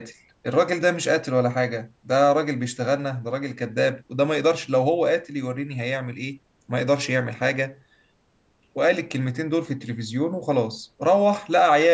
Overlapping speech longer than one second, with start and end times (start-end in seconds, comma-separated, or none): none